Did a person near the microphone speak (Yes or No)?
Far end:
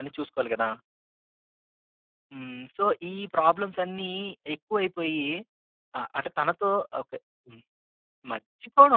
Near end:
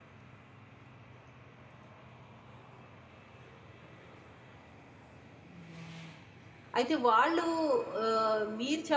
Yes